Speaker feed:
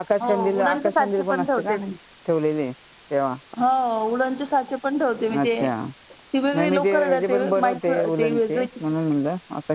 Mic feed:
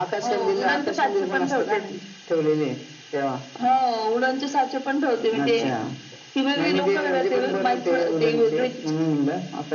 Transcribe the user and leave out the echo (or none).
none